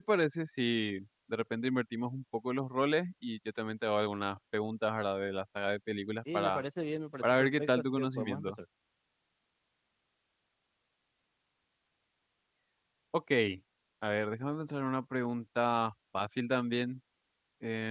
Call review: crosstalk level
present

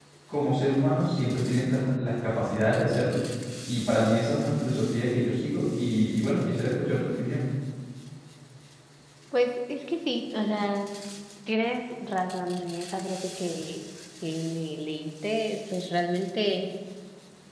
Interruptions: none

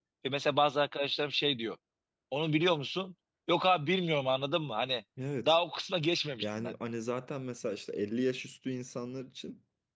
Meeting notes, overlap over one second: none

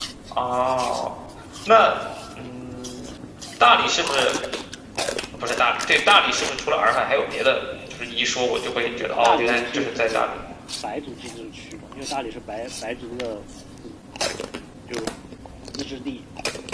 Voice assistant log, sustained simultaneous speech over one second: present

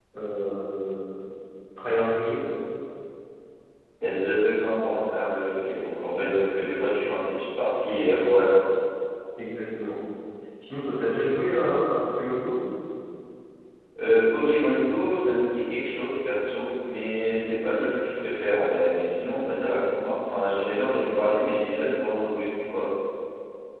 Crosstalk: none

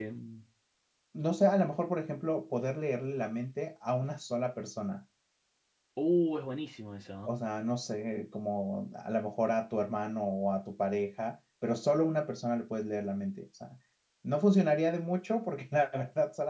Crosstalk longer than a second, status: none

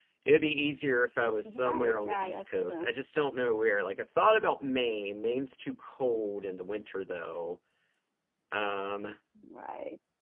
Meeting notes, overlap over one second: present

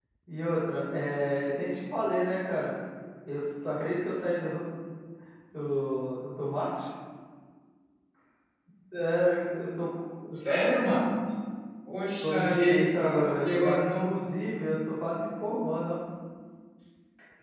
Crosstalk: present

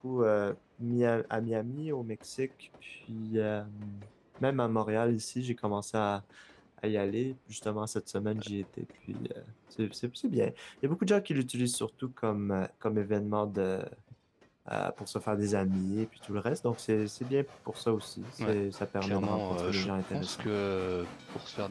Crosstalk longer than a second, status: present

